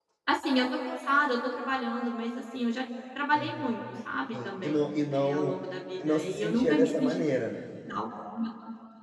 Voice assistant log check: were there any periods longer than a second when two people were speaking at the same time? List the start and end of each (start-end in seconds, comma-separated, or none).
4.3-5.5, 6.0-7.2